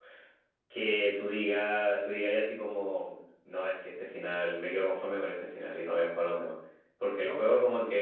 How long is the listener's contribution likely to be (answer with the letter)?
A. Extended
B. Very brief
B